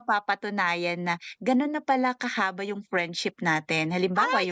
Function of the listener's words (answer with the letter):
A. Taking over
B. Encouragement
B